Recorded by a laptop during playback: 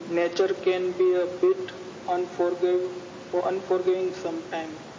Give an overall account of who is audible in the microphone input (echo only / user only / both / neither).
echo only